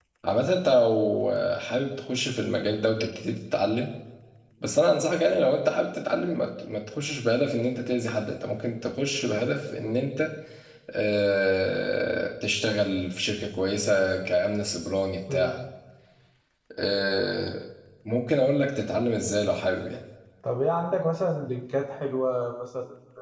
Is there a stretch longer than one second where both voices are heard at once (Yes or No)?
No